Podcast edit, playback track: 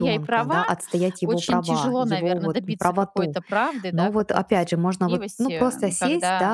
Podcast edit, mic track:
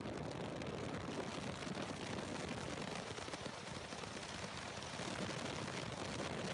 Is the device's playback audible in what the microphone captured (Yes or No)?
No